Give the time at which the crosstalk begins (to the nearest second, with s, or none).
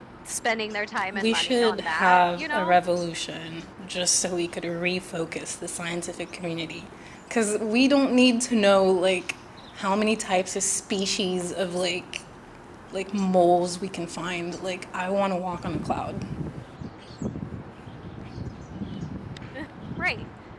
1 s